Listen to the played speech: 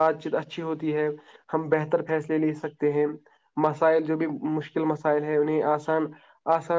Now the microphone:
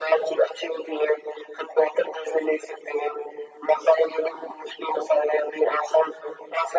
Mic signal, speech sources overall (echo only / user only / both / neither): echo only